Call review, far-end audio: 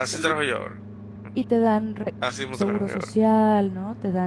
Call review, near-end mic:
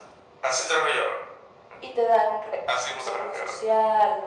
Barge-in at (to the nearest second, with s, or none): none